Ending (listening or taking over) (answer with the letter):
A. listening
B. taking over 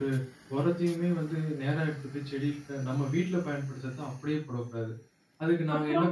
A